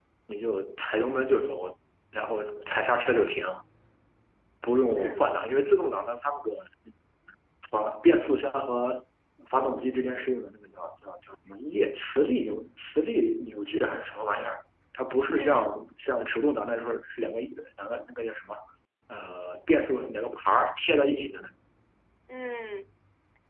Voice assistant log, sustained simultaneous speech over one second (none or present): none